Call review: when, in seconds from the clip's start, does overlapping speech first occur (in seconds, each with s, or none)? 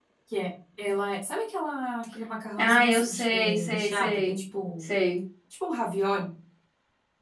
2.6 s